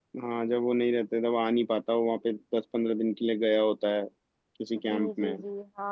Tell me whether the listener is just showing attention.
No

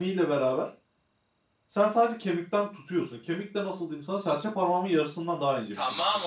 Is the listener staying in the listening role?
No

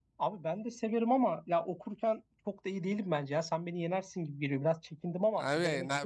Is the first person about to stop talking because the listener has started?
Yes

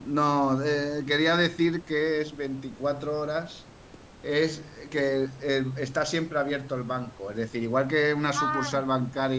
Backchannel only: Yes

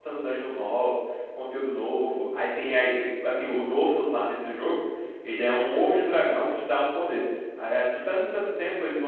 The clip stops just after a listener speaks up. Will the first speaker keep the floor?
Yes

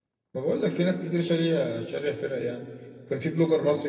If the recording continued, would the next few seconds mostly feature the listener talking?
No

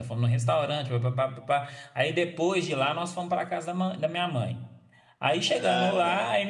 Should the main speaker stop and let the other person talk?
No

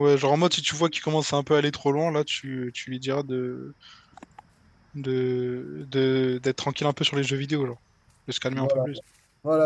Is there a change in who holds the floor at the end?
Yes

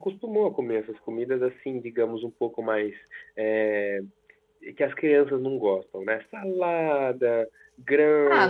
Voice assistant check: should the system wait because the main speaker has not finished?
No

